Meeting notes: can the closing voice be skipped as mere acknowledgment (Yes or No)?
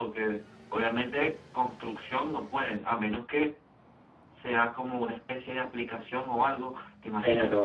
No